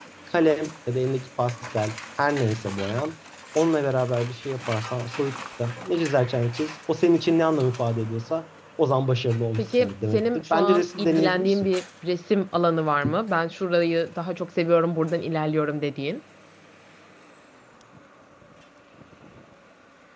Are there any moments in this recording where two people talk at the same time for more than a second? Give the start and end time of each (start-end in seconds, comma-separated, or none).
9.6-11.7